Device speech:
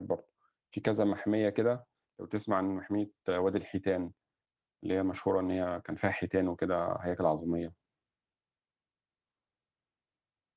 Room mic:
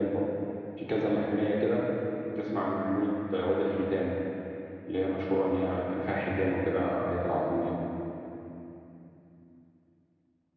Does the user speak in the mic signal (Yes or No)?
No